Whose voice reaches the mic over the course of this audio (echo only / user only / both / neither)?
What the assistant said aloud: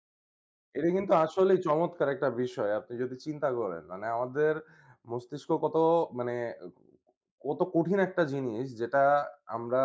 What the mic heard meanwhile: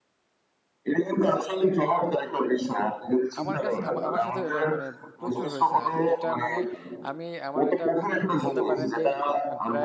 both